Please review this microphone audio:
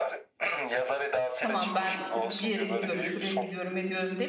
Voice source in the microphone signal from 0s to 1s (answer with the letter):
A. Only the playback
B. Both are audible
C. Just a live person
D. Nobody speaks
A